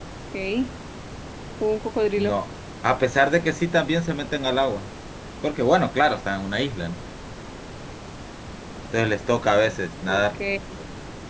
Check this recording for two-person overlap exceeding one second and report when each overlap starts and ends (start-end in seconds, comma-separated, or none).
none